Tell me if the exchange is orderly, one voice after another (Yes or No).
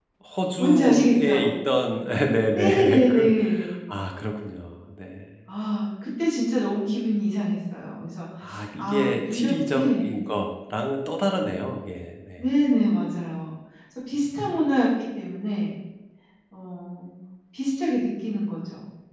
No